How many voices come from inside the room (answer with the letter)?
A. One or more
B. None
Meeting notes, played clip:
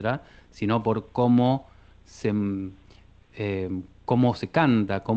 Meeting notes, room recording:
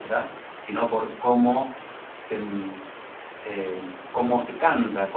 B